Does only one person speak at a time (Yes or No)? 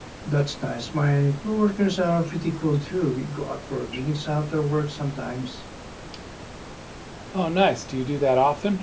Yes